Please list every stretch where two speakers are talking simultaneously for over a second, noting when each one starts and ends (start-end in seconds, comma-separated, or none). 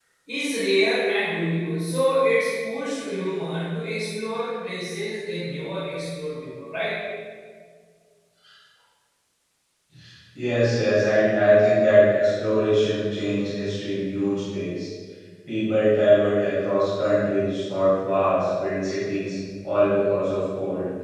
none